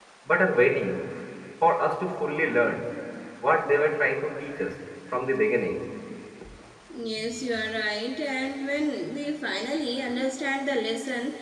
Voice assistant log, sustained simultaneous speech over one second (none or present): none